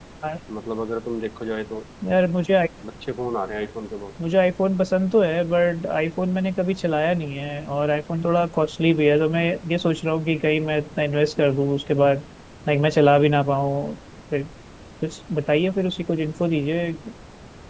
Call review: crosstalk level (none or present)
none